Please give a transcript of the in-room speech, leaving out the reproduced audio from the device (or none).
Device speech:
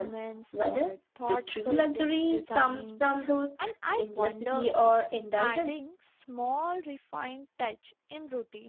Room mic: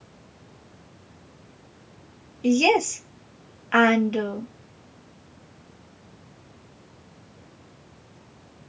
Yes, and uh,